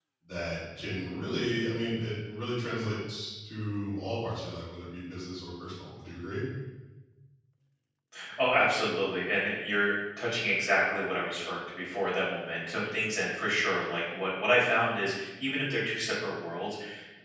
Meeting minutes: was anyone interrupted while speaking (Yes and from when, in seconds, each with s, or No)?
No